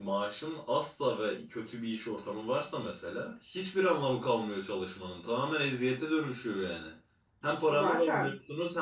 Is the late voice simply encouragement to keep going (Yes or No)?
Yes